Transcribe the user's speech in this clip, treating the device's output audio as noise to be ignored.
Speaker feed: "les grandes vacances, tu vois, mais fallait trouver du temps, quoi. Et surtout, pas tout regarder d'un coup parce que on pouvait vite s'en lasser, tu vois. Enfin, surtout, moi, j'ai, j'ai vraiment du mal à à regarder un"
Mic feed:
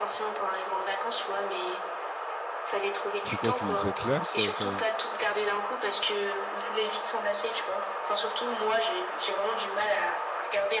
C'est quoi qui cette là ça, ça...

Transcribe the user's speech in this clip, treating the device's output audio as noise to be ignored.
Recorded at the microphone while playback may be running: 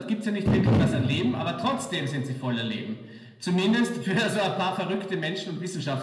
Mhm.

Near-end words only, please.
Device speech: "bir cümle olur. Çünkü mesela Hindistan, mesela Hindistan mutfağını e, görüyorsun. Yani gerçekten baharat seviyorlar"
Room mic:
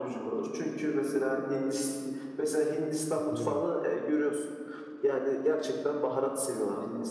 Katılıyorum.

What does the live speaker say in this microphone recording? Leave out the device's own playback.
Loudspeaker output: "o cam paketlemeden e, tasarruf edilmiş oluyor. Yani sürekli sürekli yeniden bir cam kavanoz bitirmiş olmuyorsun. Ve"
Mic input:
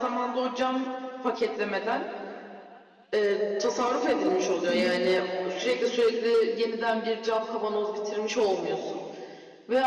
Hı hı.

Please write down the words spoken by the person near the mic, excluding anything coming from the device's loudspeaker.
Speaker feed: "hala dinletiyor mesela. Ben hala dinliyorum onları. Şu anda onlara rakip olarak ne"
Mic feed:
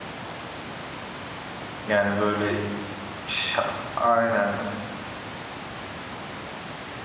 yani böyle şa- aynen

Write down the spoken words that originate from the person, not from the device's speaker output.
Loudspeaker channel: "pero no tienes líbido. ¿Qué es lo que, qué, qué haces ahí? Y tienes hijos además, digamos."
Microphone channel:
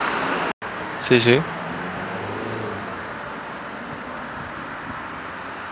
sí, sí,

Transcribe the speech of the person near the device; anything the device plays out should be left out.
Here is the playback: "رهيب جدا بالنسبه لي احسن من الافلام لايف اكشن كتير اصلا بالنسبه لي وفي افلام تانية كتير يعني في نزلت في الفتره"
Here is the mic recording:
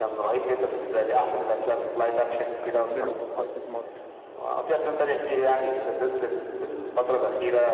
بحب له في محطة مصر

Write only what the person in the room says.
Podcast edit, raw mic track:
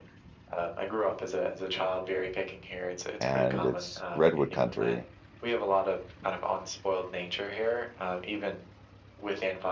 and it's redwood country.

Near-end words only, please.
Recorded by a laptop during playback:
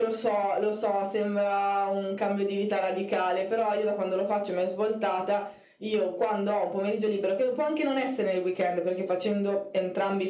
none

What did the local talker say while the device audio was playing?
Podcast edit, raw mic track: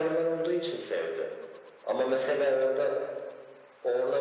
none

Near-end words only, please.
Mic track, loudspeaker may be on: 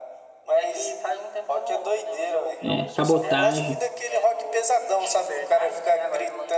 É, sabotagem.

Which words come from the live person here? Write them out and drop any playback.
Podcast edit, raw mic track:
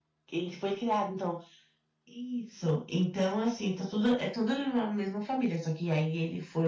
none

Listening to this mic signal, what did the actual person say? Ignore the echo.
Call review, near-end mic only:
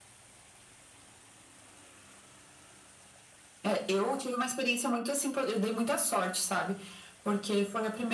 none

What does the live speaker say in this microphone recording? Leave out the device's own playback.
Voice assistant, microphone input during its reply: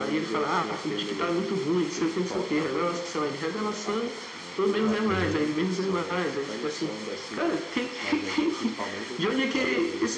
É muito

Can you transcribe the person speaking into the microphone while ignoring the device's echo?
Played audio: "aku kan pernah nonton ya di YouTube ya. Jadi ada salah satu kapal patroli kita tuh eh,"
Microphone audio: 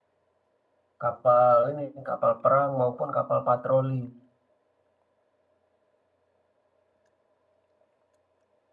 kapal ini, kapal perang maupun kapal patroli.

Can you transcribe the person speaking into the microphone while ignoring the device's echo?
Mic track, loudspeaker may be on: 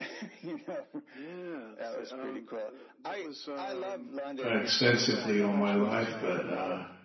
extensively all my life, but uh,

